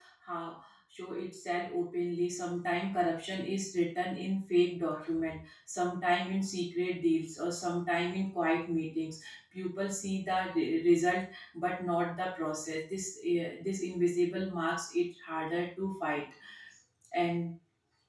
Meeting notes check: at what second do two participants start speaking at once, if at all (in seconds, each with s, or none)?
none